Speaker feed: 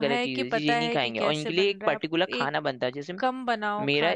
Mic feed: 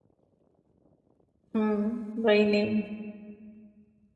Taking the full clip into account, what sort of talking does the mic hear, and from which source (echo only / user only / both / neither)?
user only